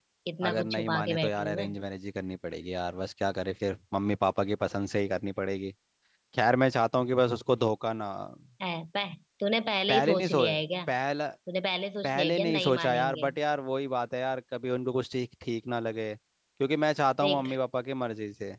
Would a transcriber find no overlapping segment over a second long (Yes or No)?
No